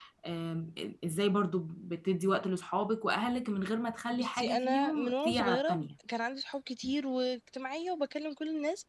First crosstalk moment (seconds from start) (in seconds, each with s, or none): 4.1 s